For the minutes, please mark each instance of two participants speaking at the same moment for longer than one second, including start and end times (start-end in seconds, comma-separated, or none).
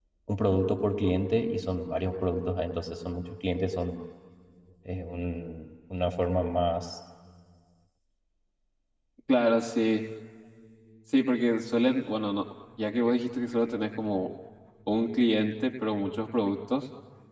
none